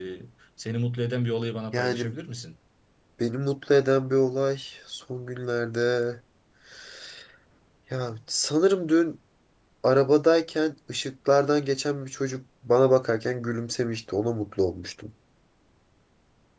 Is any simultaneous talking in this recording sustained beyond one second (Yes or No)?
No